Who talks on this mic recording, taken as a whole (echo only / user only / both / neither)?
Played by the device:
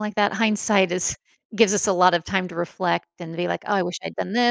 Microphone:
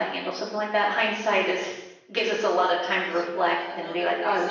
both